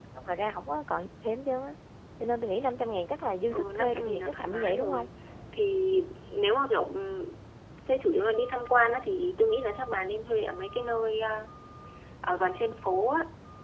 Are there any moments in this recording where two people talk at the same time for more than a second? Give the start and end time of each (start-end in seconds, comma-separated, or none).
3.5-5.1